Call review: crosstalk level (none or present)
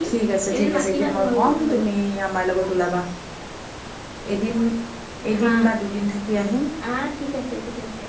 present